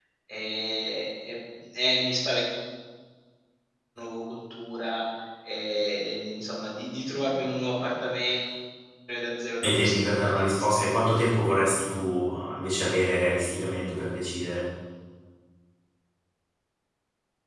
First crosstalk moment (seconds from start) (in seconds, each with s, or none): 9.6 s